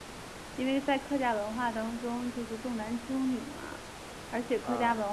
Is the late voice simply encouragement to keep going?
Yes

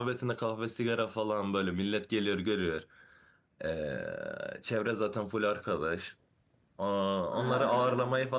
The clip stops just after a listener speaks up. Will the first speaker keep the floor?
Yes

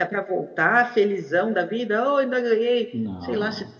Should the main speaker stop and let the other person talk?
No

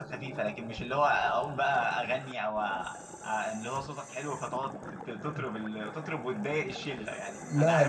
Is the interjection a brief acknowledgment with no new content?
No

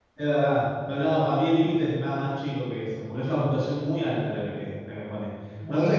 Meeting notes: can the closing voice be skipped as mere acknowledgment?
Yes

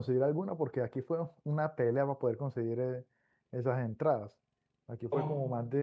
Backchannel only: Yes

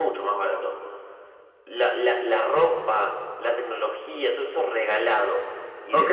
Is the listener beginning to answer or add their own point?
Yes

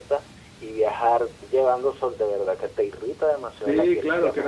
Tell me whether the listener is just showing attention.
No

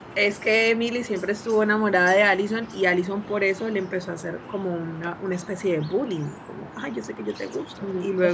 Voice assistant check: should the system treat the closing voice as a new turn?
Yes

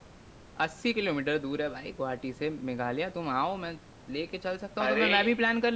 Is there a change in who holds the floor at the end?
No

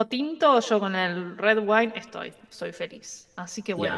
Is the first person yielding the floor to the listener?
Yes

